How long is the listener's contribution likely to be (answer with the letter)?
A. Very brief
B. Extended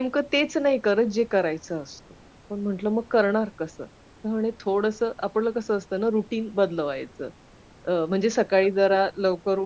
A